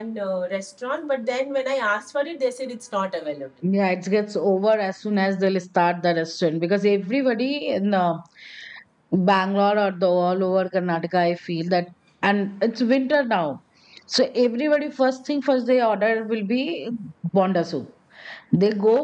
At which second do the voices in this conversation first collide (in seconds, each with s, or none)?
none